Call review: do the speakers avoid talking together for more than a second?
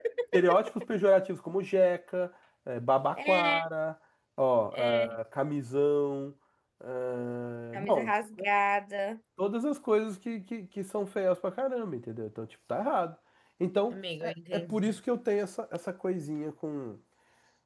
Yes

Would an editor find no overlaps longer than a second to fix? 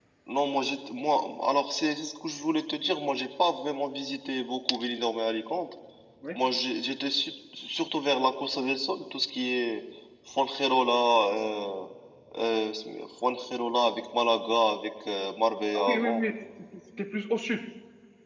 Yes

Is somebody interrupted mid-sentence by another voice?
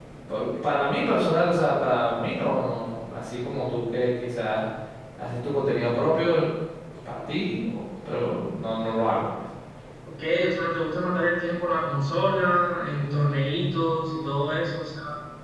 No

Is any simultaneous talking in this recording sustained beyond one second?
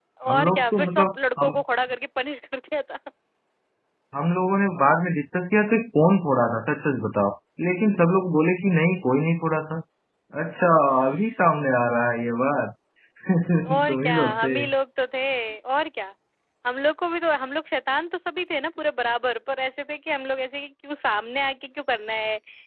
Yes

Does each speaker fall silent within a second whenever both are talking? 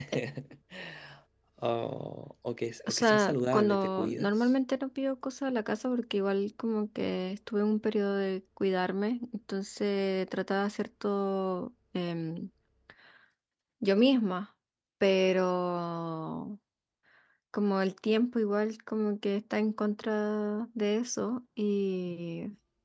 No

